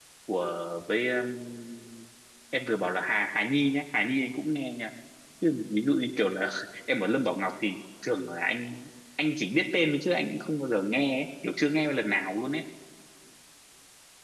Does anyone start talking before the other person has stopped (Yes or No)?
No